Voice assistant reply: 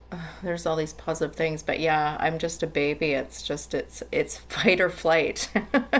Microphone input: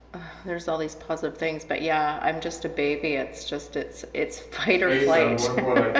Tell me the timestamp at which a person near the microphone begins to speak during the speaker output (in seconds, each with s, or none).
4.7 s